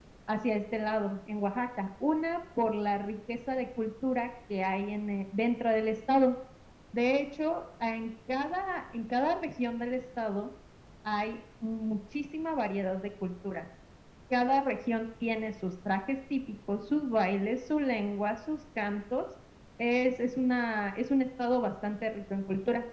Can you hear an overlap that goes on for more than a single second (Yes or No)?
No